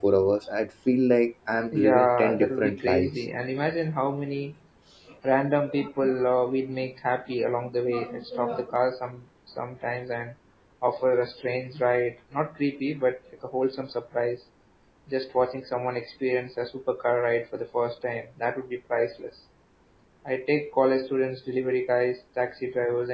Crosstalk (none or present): present